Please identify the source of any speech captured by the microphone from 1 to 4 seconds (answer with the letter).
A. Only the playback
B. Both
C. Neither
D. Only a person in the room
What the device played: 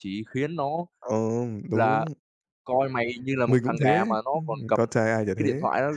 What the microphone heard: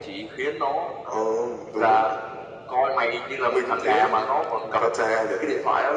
A